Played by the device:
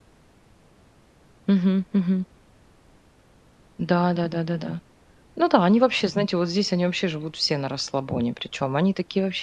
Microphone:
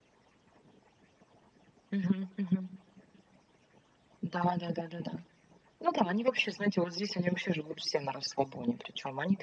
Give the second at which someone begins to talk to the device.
none

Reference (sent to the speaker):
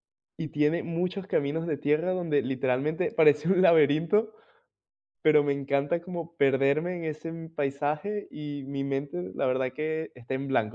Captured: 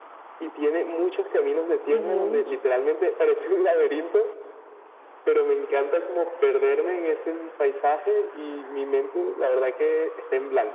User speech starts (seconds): 1.9 s

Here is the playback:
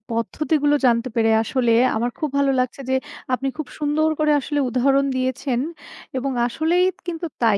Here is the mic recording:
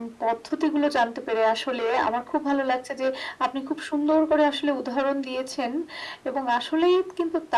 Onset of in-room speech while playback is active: none

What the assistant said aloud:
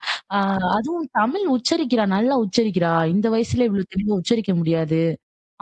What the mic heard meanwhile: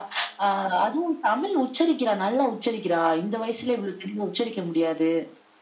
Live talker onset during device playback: none

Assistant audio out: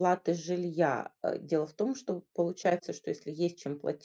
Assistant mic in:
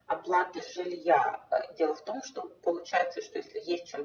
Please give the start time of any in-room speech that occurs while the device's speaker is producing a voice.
none

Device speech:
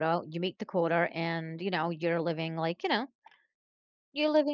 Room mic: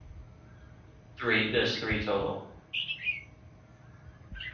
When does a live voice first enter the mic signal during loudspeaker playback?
1.2 s

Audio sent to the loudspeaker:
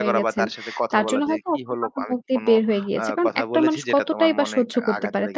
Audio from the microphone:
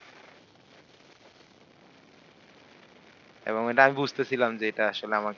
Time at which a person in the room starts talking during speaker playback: 3.5 s

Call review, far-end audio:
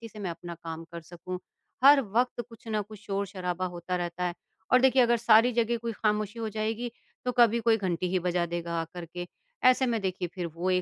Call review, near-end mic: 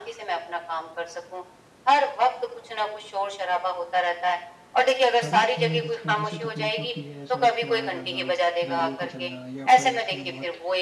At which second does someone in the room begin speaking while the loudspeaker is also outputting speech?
5.2 s

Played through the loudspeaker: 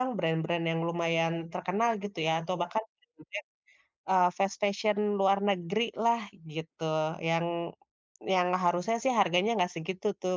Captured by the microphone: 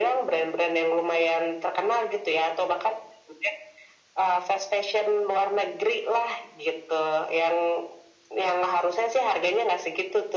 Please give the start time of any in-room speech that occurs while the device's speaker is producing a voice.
none

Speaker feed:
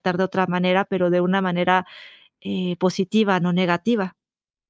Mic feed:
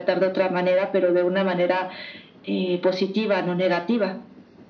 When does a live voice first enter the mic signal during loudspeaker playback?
none

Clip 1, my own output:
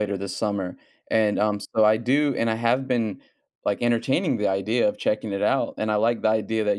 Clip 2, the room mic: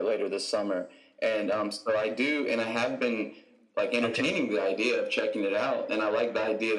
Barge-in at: 4.0 s

